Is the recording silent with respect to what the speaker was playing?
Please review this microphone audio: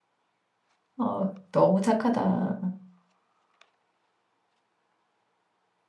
Yes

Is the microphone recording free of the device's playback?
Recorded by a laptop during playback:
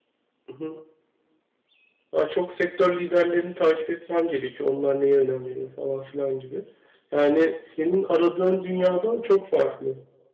Yes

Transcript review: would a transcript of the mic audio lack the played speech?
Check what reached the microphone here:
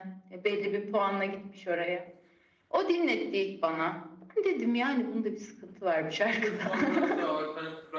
No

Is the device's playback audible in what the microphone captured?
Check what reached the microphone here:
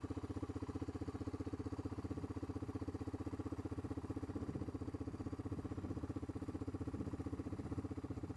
No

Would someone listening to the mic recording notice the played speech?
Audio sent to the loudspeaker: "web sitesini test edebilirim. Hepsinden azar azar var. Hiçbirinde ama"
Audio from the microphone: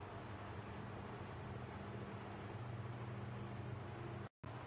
No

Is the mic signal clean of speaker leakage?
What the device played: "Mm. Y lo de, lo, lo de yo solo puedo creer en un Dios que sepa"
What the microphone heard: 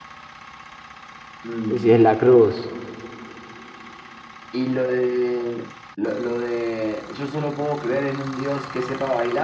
No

